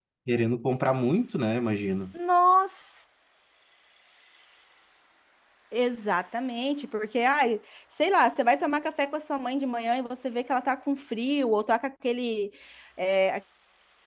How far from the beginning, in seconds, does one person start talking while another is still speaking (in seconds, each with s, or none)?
none